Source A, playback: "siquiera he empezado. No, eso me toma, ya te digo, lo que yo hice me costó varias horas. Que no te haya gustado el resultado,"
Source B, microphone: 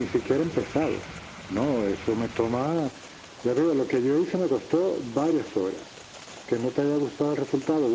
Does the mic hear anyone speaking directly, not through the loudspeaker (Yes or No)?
No